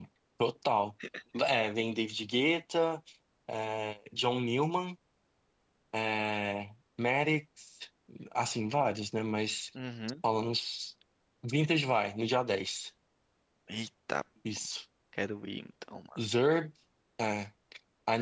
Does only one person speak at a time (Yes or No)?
Yes